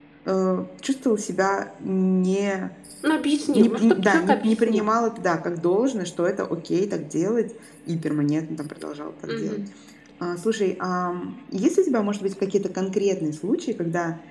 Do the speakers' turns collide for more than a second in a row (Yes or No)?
Yes